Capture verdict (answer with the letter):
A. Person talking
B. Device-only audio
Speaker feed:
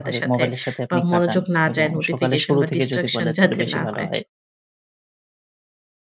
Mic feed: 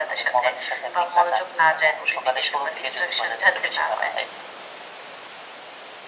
B